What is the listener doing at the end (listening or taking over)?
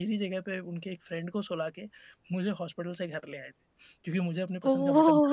taking over